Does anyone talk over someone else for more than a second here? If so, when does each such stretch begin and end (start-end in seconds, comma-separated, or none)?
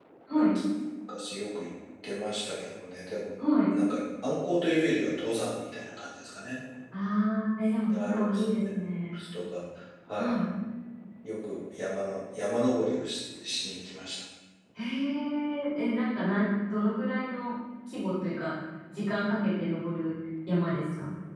7.9-9.2